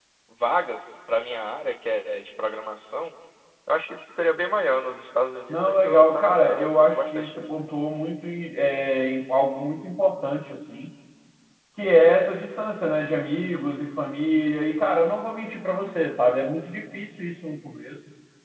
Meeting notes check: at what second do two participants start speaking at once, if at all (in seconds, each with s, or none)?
5.5 s